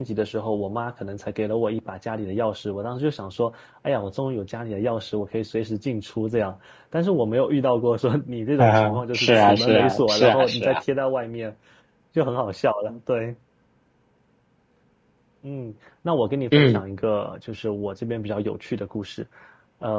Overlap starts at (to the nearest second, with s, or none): 9 s